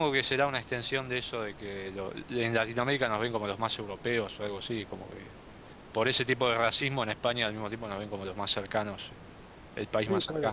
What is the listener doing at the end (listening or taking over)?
taking over